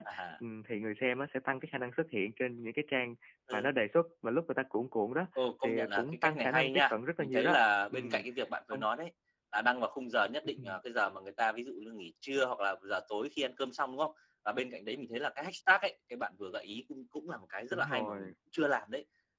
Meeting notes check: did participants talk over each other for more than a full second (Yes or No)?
Yes